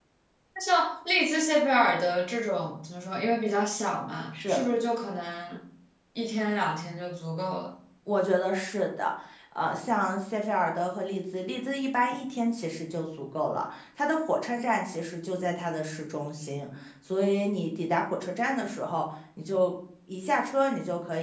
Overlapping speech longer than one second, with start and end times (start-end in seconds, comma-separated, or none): none